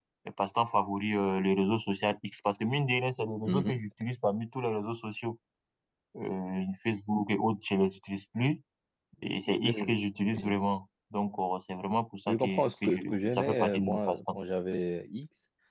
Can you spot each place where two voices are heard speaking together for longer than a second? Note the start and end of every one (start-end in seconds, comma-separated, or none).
12.3-14.4